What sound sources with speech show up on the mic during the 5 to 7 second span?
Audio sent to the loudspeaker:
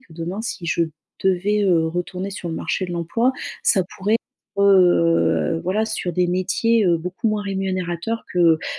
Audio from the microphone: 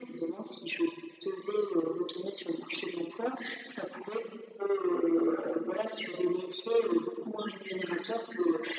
echo only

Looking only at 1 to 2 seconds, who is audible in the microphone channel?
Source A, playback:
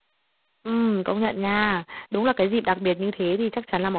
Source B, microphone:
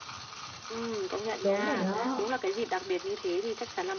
both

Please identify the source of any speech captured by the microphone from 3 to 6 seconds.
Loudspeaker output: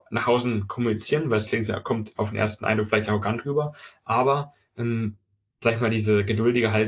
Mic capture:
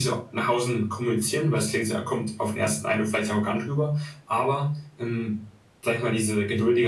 echo only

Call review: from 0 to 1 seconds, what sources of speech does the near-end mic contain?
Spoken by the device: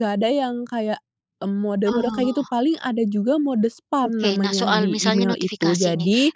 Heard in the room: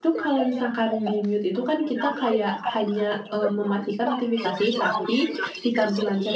both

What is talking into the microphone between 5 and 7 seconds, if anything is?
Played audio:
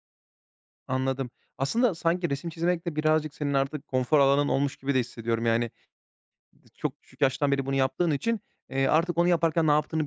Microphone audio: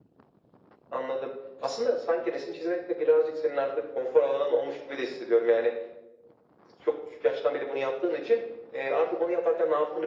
echo only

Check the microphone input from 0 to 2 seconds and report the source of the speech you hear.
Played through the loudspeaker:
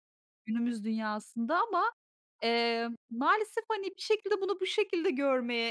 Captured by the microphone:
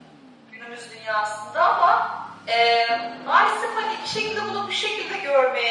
echo only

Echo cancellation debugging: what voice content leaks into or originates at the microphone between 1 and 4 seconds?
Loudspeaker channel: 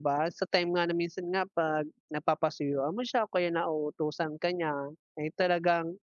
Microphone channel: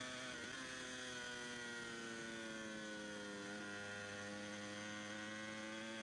neither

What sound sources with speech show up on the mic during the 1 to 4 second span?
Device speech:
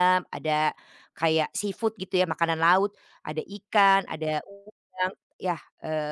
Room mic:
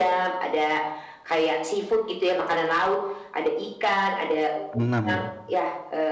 echo only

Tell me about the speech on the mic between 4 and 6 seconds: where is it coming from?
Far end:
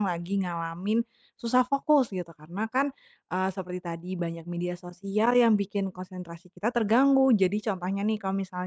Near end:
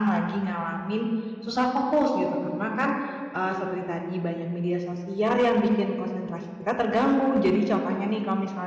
echo only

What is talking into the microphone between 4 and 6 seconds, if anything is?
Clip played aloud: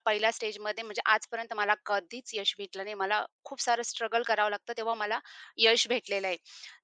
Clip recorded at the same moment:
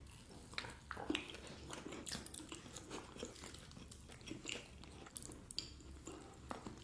neither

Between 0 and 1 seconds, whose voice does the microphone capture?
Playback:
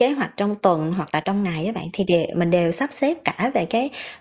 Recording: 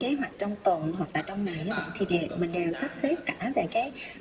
echo only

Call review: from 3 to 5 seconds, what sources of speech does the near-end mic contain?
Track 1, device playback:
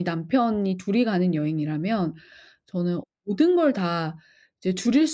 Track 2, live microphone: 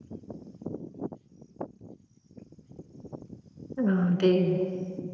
user only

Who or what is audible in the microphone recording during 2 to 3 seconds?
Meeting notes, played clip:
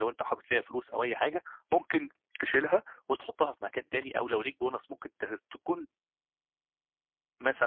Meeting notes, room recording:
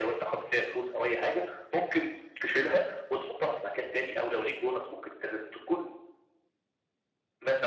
echo only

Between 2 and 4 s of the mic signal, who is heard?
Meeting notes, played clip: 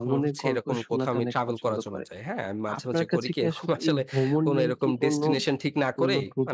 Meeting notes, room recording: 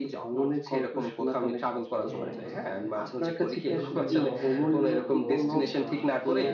both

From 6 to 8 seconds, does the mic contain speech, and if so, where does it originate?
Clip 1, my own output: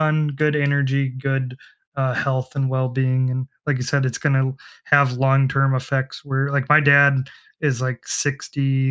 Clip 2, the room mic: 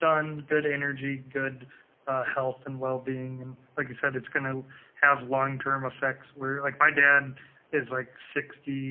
echo only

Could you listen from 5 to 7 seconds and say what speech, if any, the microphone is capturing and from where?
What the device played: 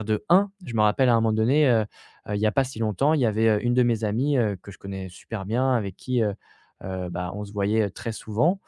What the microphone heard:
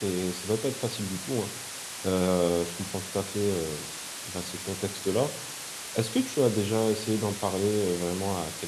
user only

